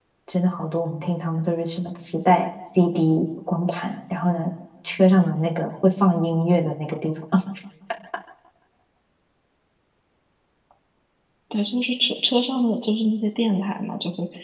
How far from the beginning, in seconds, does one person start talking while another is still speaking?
none

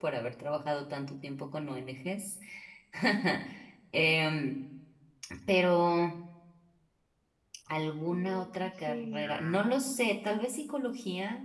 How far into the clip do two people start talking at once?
8.1 s

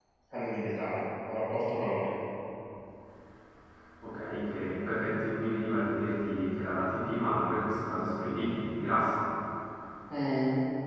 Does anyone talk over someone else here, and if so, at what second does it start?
none

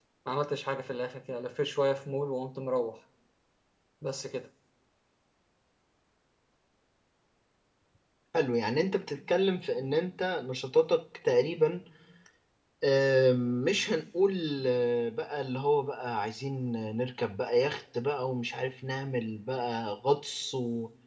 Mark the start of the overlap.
none

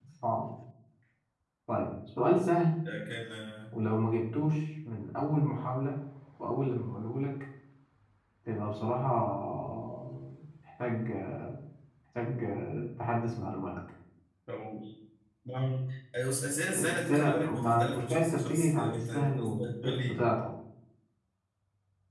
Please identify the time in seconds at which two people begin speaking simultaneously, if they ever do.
16.7 s

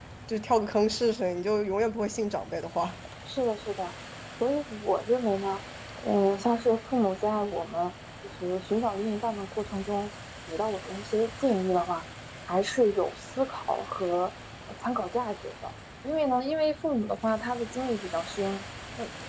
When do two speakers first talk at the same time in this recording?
none

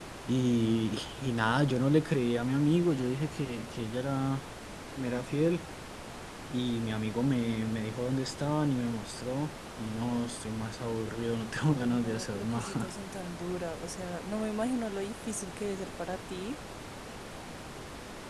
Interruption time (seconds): 11.7 s

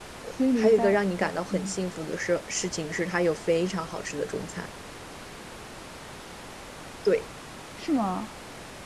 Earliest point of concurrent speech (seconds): 0.6 s

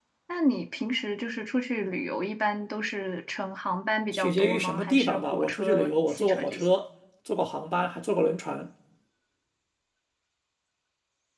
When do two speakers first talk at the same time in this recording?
4.1 s

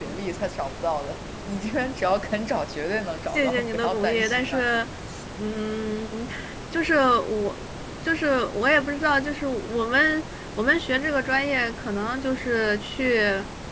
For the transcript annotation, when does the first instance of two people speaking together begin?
3.3 s

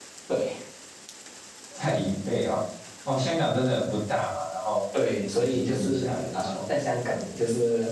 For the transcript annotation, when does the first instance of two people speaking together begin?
5.3 s

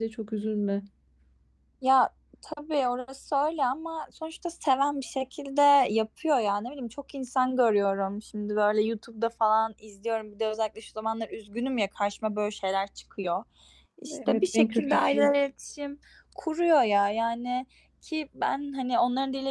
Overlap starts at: 14.1 s

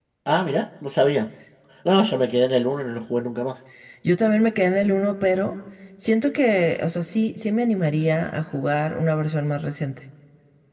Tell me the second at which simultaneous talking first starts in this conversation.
none

